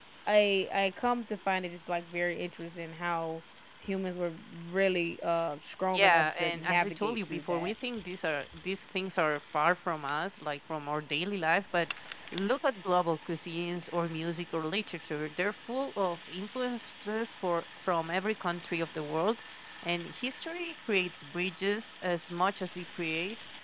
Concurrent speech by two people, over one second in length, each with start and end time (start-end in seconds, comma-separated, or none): 5.9-7.7